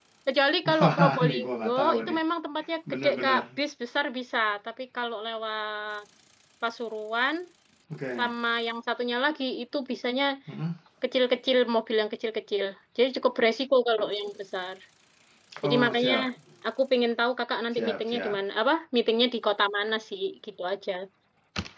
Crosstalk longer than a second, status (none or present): present